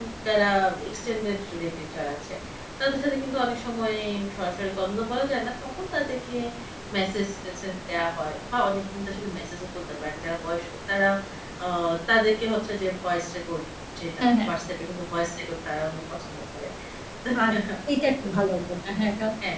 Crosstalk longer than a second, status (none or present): none